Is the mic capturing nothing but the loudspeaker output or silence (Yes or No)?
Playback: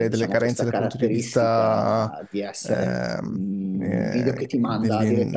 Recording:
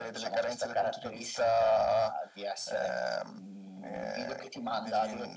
Yes